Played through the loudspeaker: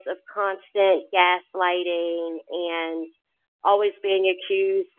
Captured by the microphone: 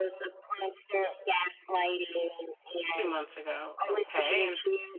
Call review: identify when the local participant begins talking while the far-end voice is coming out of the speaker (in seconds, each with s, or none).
2.9 s